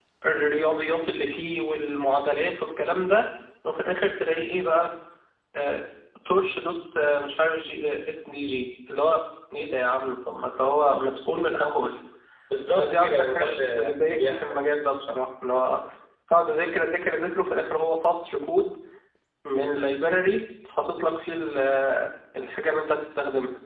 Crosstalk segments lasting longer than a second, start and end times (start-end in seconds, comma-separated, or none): 12.8-14.6